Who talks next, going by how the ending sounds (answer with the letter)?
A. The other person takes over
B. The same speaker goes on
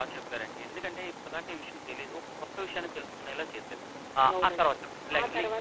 A